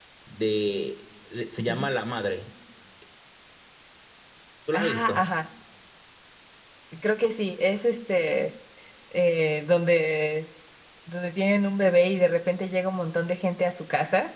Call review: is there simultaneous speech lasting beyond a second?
No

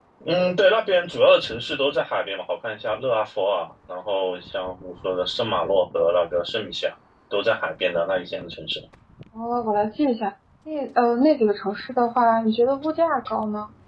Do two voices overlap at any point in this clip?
No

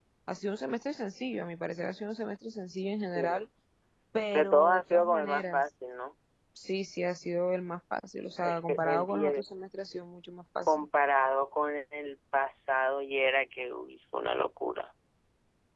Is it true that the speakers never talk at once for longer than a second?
No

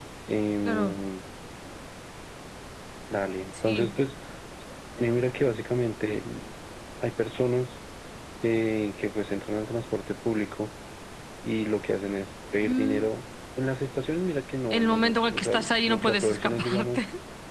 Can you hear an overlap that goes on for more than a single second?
Yes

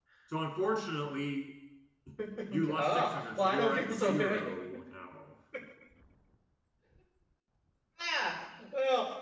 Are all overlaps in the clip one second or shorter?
No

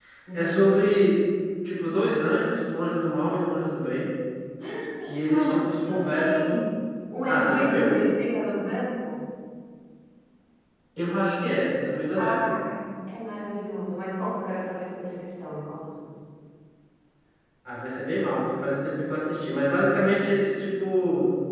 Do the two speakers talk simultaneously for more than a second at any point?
Yes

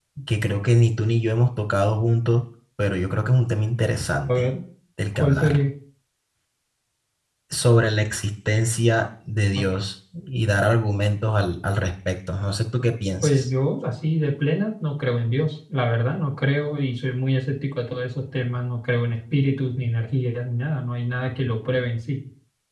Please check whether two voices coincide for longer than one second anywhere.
No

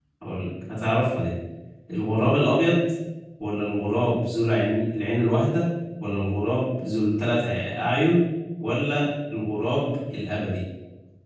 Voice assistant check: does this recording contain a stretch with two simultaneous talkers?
No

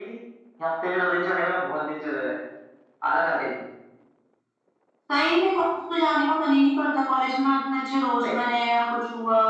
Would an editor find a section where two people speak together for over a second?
No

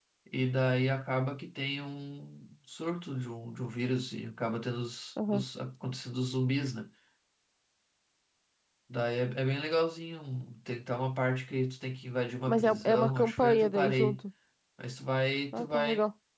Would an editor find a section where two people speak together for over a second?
Yes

